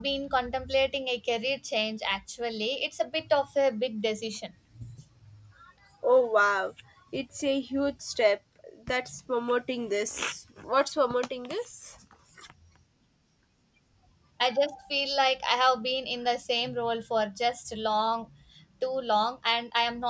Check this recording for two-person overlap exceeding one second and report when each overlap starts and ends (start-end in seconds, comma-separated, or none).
none